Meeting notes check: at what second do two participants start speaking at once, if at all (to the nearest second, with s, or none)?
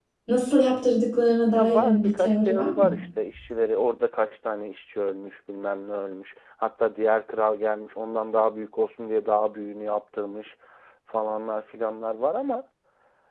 2 s